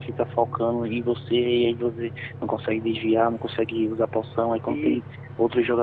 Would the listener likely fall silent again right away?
Yes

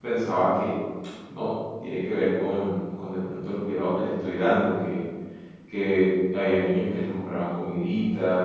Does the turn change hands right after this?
No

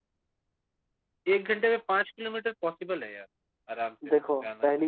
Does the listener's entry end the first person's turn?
Yes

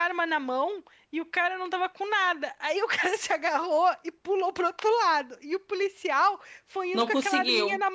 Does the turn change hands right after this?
No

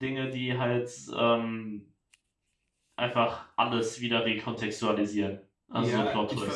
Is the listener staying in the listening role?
No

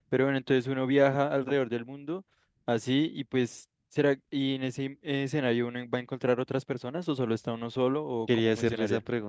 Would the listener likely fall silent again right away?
No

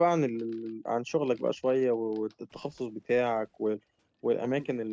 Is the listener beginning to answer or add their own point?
No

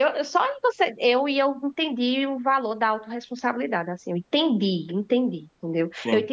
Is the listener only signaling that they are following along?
Yes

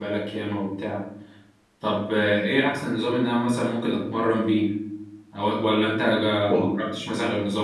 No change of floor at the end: Yes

